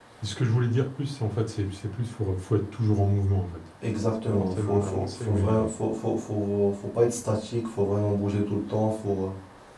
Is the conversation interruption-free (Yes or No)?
No